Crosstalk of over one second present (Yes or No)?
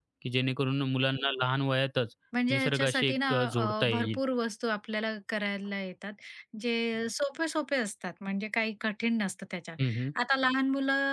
Yes